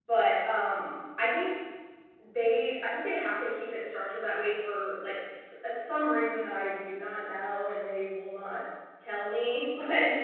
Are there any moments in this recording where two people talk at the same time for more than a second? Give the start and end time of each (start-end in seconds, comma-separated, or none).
none